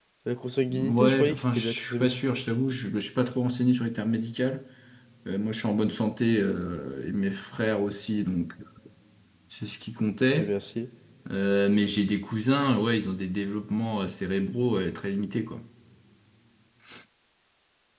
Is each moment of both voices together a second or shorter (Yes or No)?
No